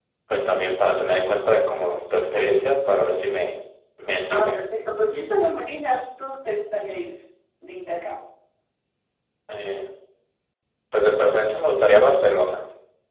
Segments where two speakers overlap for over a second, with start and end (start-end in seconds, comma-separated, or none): none